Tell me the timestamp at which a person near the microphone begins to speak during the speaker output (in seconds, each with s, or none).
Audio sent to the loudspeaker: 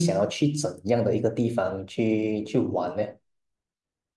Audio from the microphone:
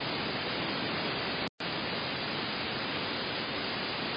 none